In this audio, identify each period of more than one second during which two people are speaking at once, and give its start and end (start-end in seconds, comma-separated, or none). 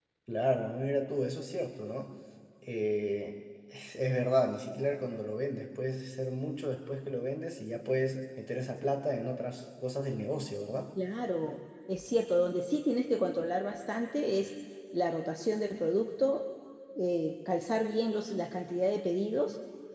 none